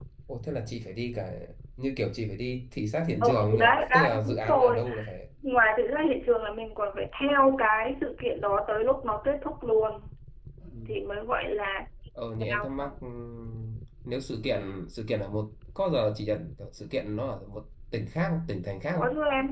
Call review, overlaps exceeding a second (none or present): present